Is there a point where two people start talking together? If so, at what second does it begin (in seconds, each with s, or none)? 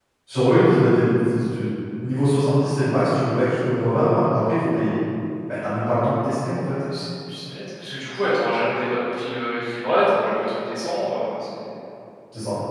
none